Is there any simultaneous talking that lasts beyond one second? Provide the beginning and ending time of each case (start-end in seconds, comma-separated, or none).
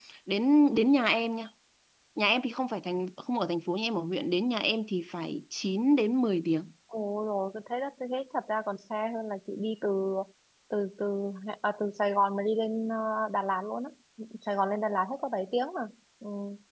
none